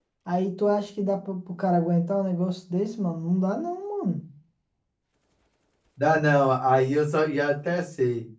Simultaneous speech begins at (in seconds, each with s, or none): none